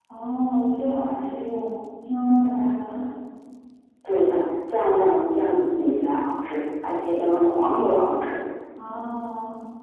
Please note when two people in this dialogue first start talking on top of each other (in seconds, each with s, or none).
none